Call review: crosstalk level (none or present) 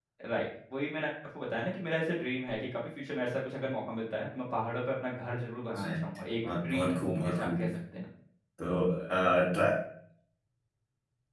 present